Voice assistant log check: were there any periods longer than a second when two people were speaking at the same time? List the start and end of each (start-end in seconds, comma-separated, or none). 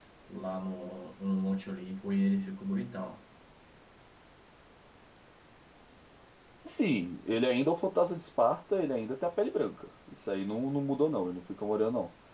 none